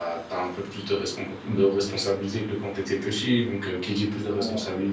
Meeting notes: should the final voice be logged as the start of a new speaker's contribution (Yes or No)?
No